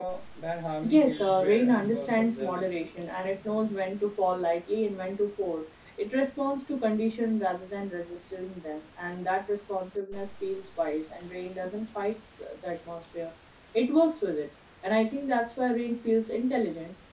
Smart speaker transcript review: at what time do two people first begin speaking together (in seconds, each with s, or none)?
0.9 s